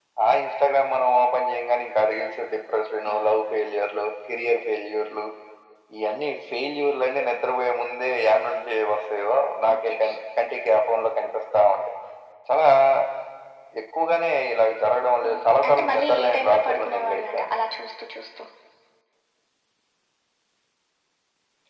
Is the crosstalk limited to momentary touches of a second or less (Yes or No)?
No